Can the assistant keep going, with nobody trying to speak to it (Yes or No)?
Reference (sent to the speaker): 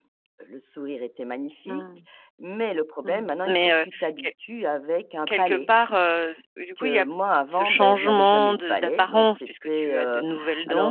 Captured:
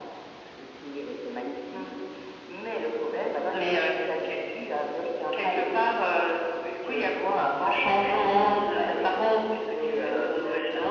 Yes